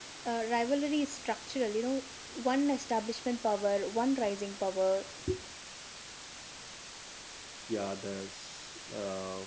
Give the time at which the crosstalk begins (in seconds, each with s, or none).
none